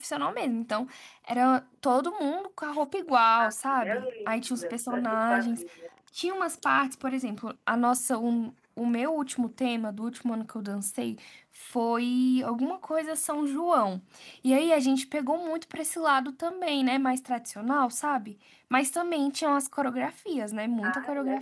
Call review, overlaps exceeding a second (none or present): present